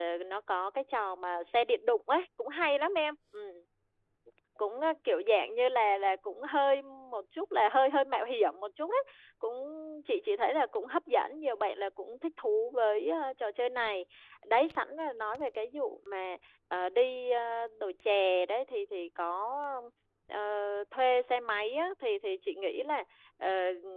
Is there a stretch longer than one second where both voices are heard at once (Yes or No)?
No